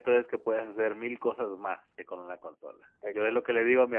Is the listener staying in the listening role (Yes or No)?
Yes